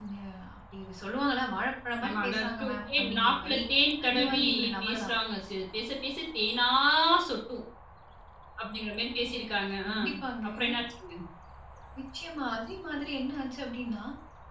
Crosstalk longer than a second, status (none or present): present